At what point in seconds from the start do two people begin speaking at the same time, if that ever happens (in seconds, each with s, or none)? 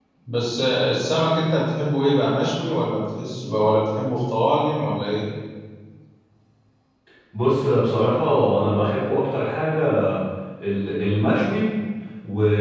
none